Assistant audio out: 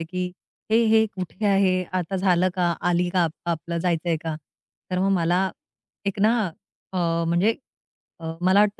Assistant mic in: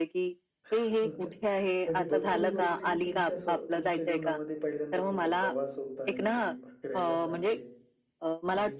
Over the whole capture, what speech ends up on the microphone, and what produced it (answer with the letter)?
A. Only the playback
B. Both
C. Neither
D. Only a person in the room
B